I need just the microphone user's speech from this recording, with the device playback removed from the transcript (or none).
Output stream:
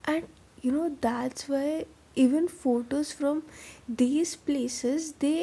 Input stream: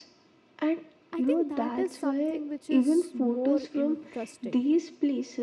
I think that is something which is more interesting